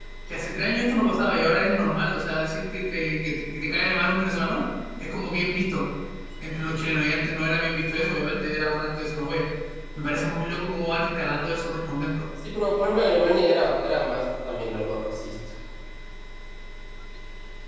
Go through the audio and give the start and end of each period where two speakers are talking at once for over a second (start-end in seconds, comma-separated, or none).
none